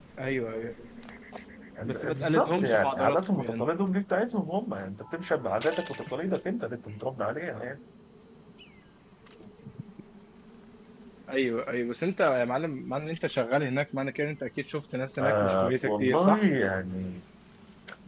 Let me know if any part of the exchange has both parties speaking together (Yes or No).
Yes